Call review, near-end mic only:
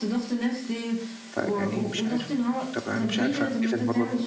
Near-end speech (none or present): present